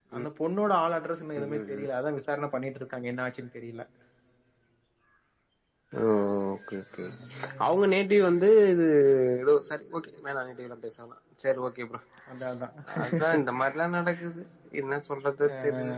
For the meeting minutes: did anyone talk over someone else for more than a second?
No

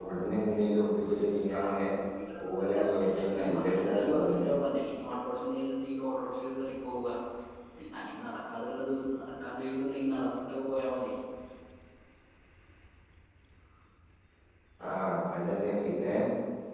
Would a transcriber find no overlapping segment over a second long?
No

